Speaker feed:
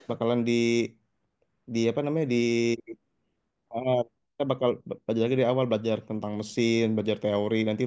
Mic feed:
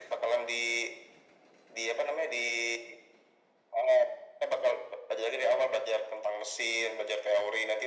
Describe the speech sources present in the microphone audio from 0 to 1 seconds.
echo only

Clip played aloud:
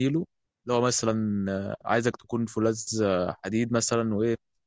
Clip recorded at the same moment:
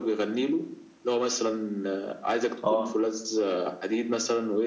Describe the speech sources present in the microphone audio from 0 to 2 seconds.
echo only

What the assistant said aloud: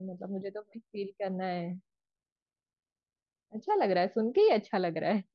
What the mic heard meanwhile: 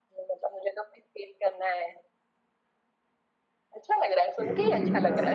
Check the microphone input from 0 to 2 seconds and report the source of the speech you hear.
echo only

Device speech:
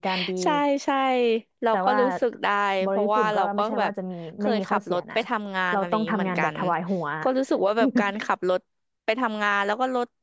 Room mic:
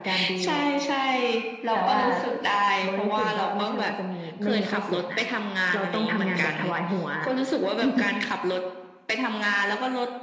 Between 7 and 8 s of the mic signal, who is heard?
echo only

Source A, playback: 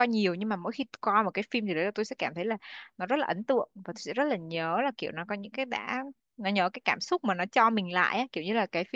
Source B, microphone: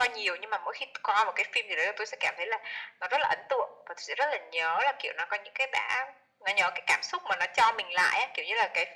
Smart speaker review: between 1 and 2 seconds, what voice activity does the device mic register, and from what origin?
echo only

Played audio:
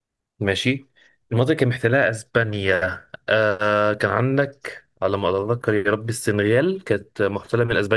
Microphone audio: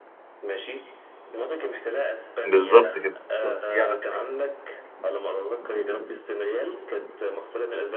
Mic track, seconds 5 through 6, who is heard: echo only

